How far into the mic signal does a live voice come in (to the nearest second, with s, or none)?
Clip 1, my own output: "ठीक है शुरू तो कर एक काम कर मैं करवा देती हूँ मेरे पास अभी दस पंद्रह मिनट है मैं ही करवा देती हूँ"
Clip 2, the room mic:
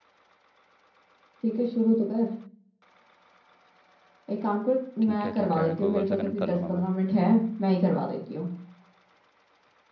5 s